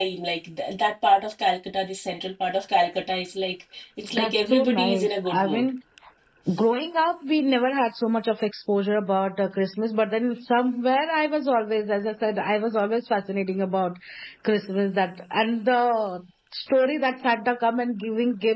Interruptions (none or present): present